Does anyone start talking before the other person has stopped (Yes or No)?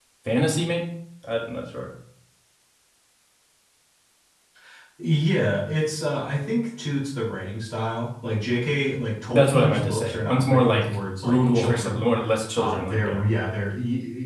Yes